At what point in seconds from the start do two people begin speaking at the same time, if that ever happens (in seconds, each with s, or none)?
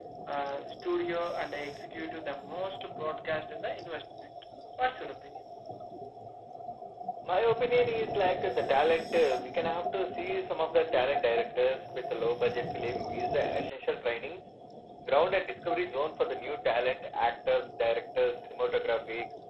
none